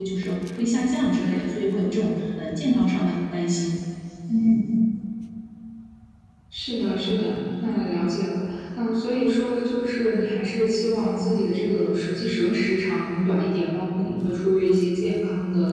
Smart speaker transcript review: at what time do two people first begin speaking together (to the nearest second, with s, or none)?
none